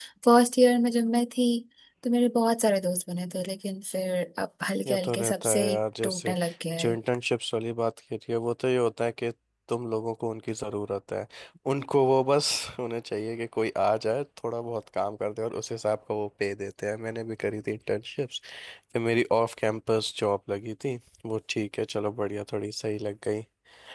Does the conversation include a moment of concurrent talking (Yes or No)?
Yes